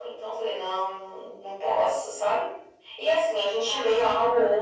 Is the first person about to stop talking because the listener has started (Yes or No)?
No